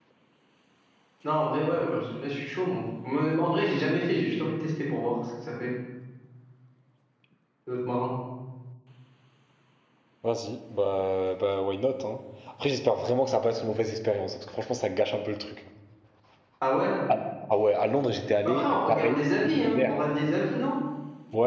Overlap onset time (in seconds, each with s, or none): 18.4 s